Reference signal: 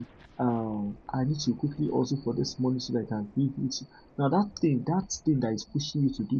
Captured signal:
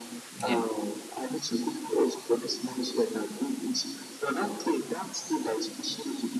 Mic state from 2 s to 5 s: echo only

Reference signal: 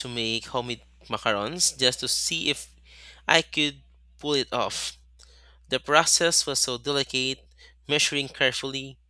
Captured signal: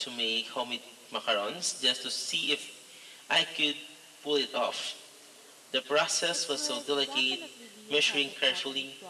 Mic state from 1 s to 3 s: echo only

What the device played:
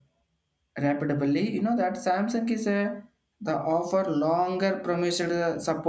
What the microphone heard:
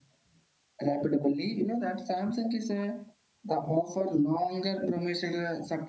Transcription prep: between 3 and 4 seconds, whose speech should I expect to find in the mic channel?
echo only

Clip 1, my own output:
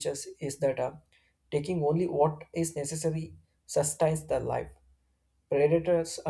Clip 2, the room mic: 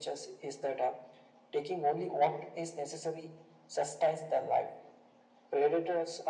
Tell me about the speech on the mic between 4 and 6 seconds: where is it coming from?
echo only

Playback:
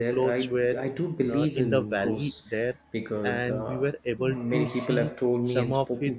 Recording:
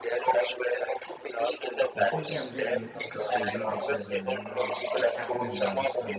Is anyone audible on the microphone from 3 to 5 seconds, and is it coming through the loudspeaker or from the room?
both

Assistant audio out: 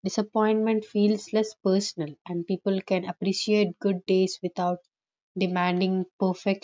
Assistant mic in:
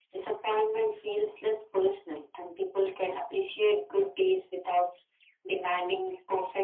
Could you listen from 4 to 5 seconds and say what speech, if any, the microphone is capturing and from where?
echo only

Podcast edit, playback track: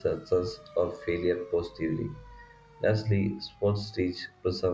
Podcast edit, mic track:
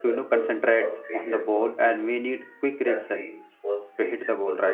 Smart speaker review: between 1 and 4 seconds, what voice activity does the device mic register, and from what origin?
both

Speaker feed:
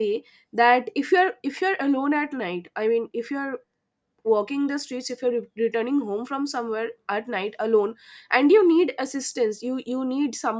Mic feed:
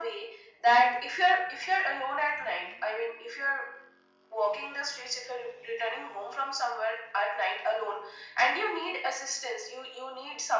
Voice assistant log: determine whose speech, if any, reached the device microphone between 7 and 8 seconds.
echo only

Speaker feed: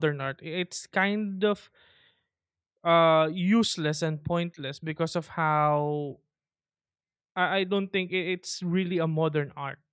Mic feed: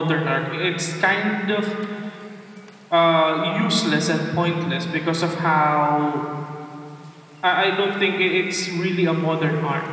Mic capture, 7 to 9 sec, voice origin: echo only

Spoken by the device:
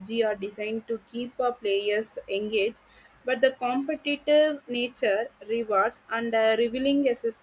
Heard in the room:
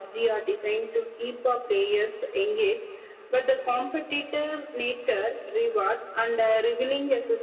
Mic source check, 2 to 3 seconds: echo only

